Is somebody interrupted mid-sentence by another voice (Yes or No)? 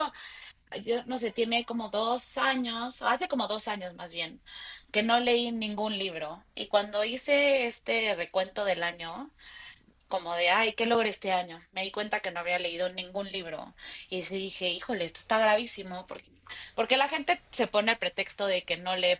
No